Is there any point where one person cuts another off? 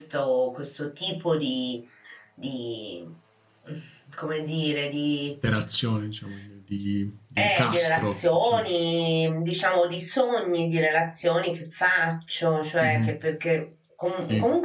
Yes, from 7.4 s

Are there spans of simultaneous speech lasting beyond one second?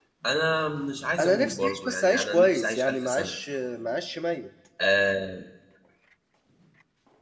Yes, from 1.2 s

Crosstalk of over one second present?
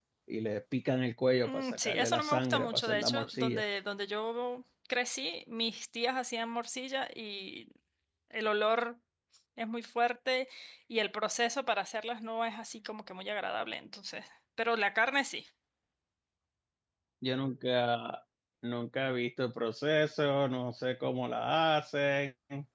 Yes, from 1.4 s

